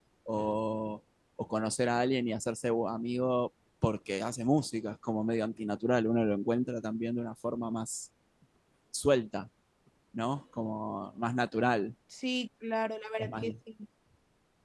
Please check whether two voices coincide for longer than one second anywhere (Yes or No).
No